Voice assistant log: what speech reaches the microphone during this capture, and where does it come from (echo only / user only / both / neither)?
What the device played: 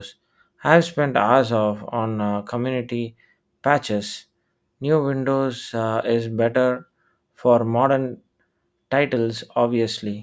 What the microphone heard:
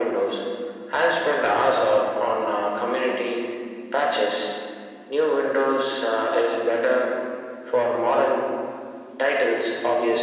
echo only